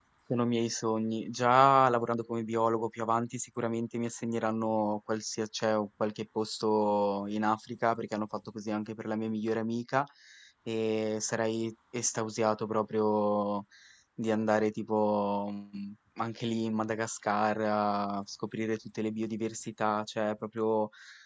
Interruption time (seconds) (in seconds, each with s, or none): none